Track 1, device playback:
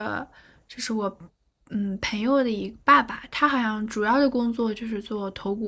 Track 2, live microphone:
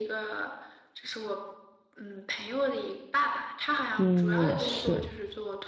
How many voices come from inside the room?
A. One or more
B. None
A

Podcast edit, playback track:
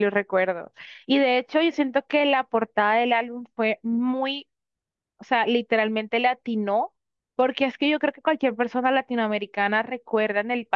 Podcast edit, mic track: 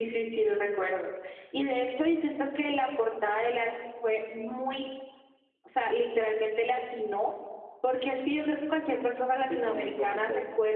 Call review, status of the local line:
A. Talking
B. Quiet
A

